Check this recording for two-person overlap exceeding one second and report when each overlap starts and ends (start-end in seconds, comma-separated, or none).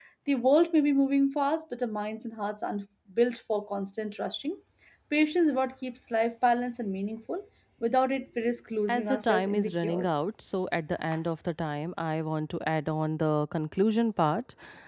8.9-10.2